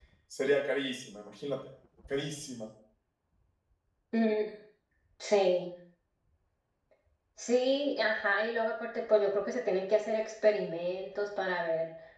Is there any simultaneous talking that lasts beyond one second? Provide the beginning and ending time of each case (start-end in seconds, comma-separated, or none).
none